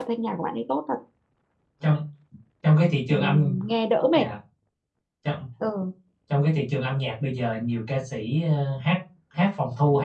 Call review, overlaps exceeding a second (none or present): none